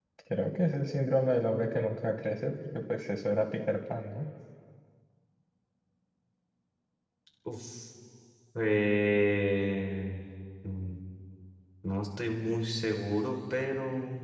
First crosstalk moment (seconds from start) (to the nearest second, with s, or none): none